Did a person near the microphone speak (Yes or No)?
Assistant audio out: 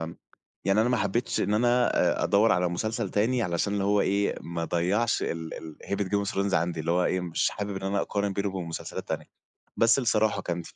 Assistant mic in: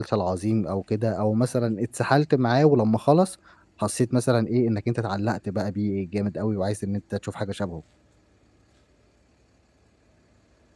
Yes